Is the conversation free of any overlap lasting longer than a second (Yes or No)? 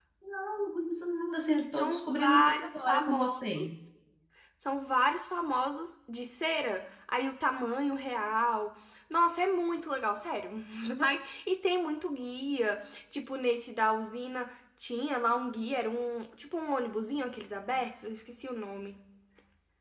No